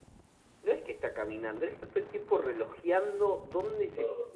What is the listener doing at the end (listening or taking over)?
listening